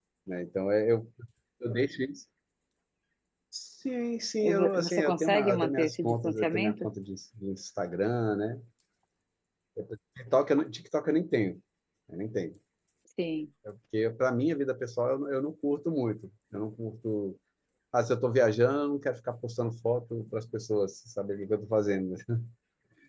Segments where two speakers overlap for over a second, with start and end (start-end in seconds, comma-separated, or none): 4.4-6.9